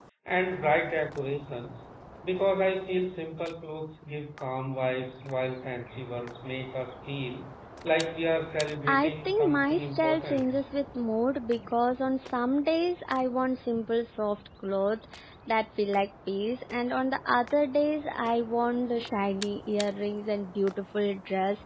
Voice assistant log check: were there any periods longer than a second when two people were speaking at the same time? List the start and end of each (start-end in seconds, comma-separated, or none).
8.9-10.4